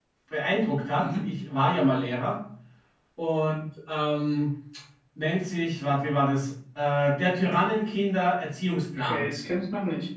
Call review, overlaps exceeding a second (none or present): none